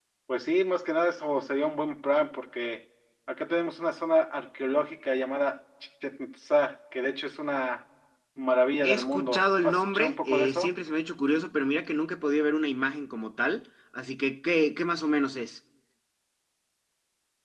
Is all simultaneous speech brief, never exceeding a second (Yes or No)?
No